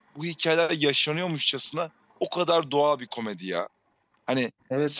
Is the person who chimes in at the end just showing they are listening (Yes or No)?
No